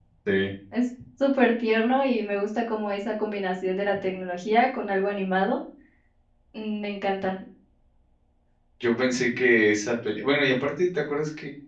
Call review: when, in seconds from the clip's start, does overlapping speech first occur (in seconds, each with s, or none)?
none